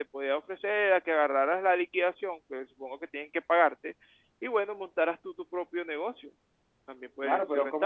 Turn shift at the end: Yes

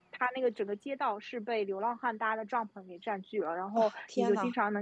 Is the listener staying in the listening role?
Yes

